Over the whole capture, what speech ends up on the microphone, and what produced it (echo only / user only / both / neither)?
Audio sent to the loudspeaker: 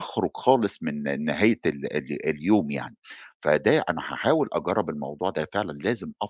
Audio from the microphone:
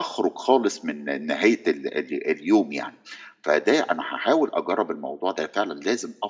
echo only